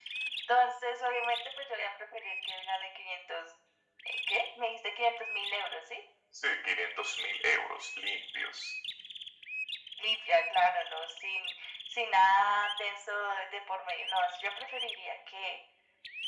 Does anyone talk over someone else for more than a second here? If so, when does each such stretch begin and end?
none

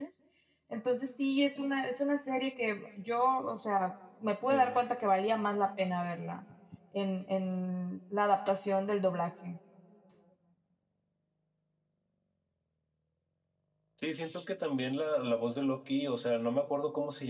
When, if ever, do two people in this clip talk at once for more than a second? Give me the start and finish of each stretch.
none

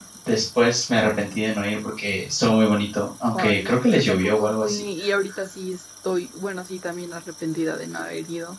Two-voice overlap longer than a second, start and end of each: 3.3-4.8

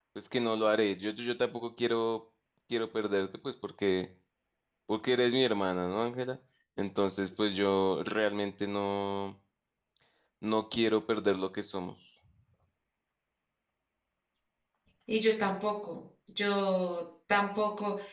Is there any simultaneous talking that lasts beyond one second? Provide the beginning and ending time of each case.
none

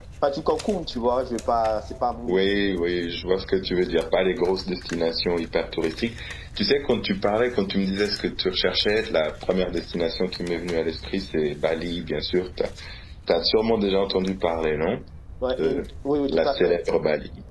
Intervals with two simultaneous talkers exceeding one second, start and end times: none

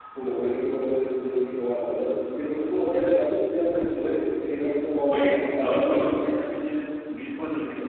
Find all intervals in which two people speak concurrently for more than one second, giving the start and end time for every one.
4.4-6.3

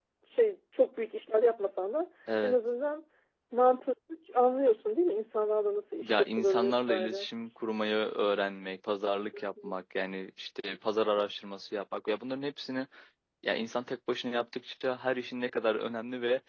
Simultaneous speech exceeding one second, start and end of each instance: 6.0-7.3

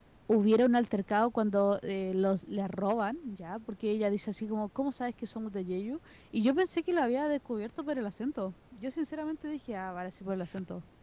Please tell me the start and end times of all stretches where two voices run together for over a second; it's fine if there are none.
none

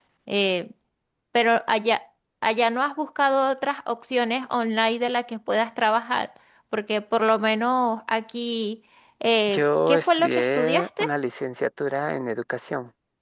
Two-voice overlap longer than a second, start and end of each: 9.5-11.0

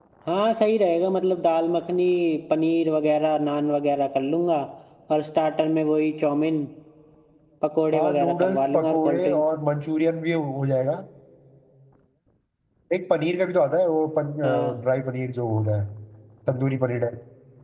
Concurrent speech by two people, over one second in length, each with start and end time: 7.9-9.4

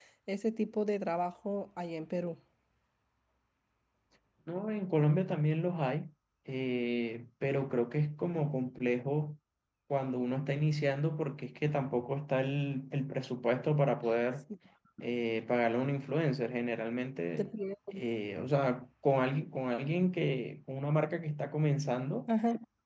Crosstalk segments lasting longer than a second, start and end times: none

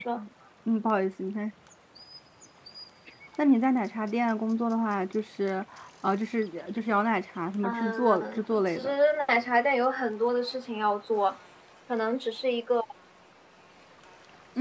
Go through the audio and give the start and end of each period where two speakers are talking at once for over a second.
7.6-8.9

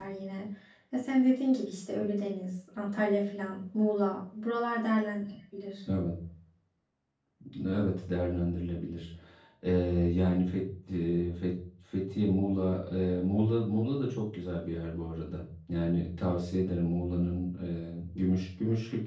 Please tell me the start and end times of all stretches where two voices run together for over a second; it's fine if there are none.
none

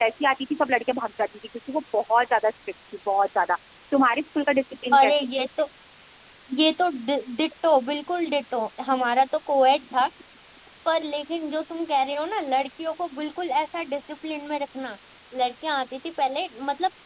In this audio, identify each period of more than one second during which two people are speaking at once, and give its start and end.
none

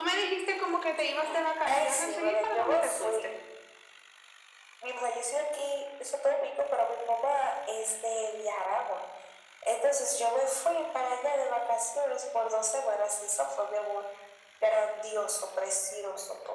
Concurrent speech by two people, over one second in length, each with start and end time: 1.7-3.2

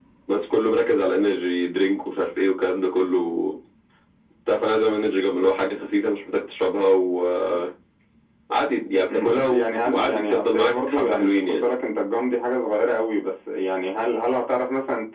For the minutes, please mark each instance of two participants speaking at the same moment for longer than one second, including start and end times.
9.1-11.6

